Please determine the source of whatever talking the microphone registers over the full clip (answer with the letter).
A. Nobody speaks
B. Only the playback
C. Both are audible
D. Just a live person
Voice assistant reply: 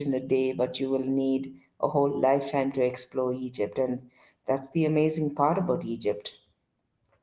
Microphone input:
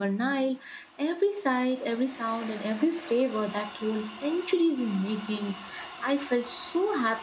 D